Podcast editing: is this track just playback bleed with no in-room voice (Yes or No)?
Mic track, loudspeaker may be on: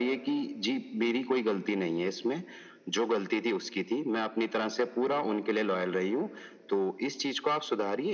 Yes